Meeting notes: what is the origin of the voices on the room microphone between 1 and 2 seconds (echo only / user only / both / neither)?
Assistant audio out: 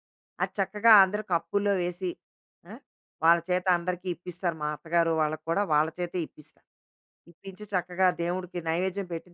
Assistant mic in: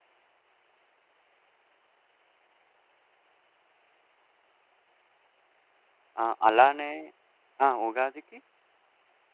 neither